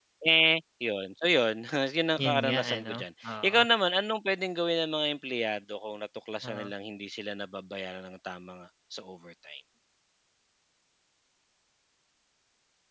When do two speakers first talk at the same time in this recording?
2.2 s

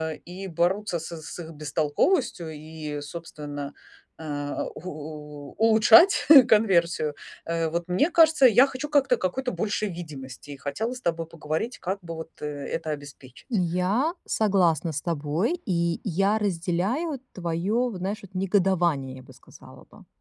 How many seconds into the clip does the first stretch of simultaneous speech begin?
none

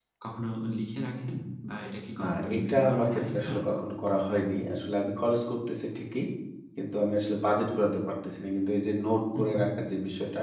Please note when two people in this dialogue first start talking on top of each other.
2.2 s

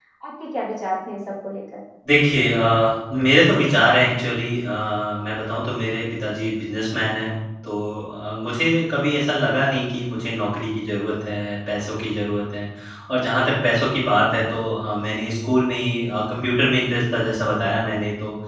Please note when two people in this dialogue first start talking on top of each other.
none

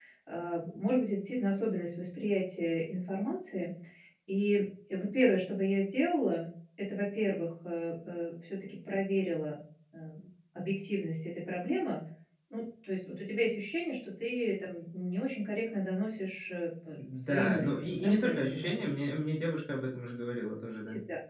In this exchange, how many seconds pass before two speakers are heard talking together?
17.0 s

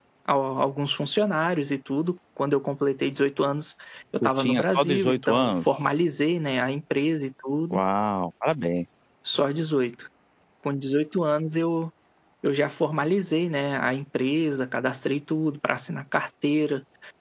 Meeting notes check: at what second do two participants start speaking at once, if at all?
4.2 s

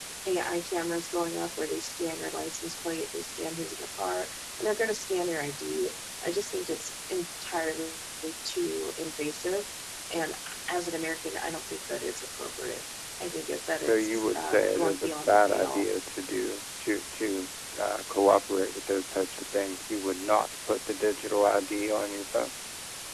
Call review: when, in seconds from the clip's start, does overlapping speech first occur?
13.8 s

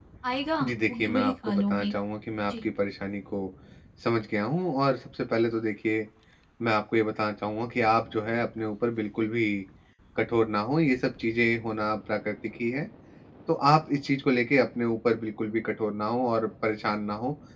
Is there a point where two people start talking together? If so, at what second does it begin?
0.6 s

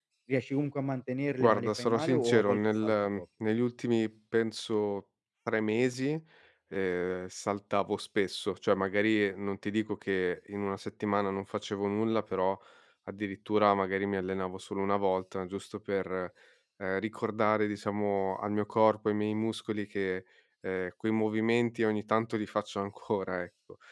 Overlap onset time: 1.4 s

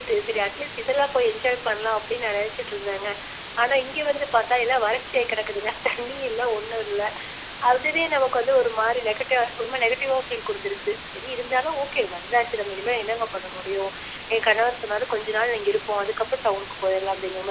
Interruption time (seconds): none

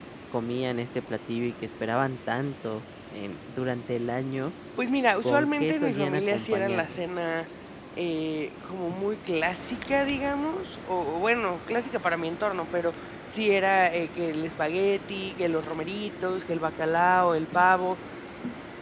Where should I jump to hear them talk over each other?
5.2 s

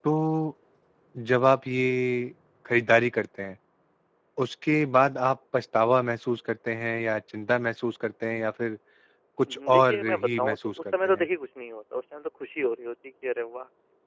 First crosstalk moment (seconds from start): 9.5 s

